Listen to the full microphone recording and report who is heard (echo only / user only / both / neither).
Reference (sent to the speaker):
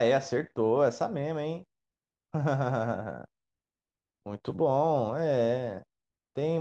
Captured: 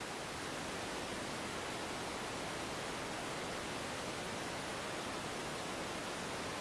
neither